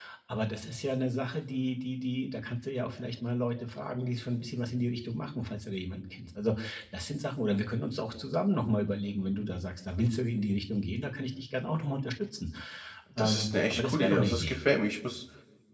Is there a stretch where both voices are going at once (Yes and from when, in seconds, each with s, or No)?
Yes, from 13.2 s